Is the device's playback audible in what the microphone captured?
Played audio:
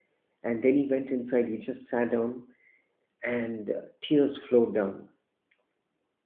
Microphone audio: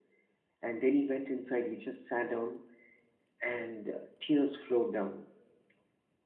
Yes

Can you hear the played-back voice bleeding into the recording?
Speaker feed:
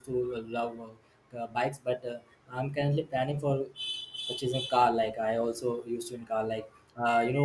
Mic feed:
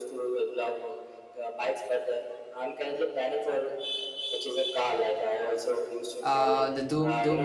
Yes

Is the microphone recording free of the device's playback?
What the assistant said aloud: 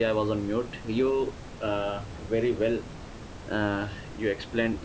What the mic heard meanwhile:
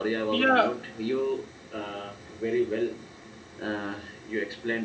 No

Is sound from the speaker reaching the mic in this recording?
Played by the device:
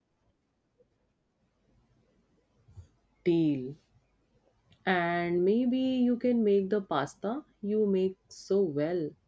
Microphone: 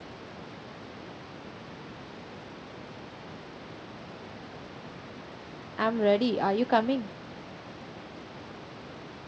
No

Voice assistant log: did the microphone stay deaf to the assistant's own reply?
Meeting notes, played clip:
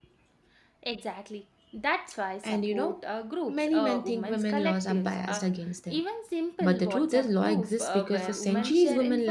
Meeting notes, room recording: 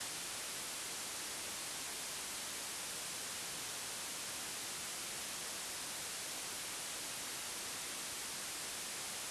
Yes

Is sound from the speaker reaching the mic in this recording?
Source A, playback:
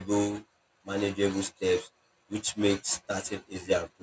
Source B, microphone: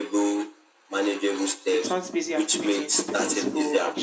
Yes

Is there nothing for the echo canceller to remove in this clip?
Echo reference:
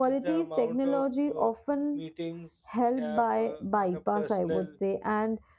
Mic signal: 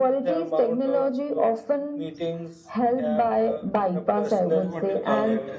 No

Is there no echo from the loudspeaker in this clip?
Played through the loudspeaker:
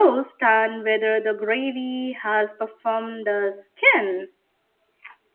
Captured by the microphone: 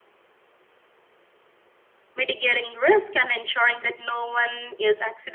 Yes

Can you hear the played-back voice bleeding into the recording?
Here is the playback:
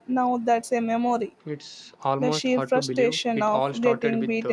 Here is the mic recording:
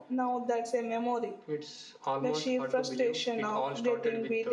Yes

